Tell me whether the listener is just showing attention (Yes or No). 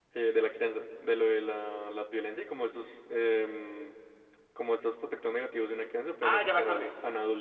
No